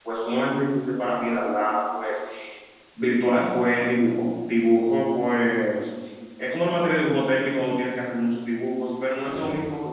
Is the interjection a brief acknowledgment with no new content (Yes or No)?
Yes